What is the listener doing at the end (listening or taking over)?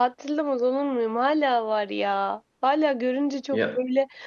listening